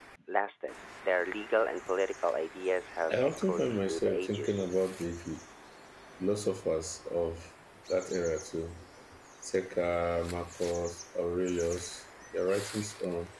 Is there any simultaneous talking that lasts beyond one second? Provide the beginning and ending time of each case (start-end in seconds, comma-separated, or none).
3.1-4.7